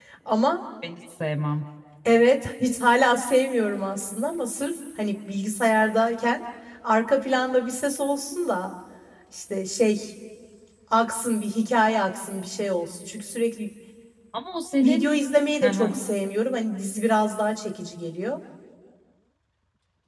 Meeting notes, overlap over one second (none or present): none